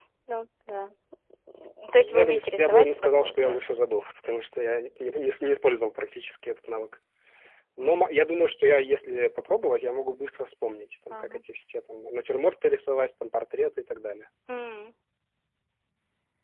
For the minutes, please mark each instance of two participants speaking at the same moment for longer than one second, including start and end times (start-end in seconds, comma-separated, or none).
1.9-3.6